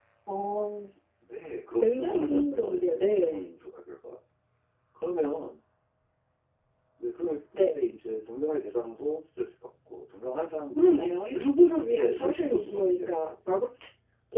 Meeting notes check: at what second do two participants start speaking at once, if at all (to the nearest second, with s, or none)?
2 s